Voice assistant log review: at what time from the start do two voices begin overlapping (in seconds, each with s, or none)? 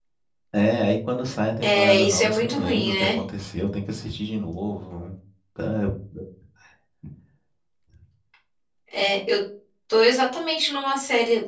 1.6 s